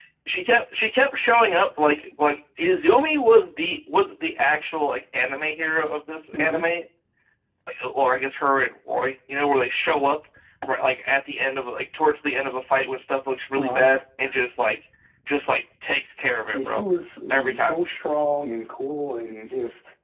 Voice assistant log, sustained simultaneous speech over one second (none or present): none